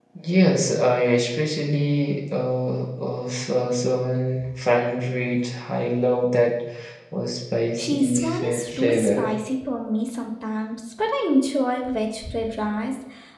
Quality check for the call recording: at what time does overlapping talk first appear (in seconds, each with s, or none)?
7.8 s